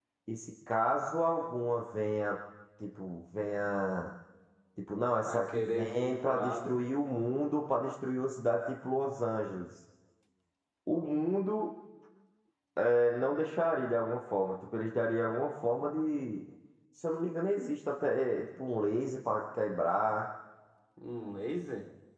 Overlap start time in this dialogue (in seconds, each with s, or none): 5.2 s